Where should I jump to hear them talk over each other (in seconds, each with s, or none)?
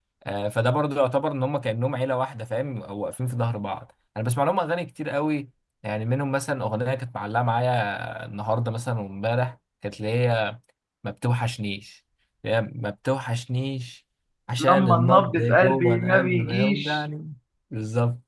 14.7 s